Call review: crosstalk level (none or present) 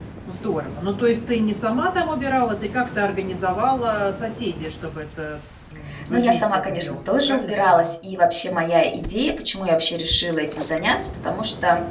present